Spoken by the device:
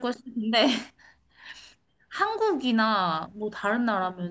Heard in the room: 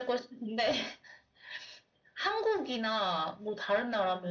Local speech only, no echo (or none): none